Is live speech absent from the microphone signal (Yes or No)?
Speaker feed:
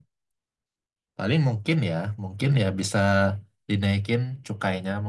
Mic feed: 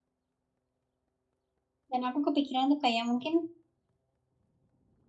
No